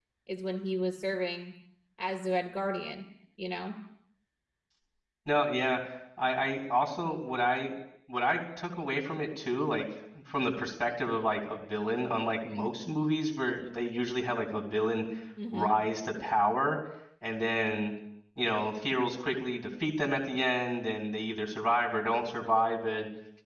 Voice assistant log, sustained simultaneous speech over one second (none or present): none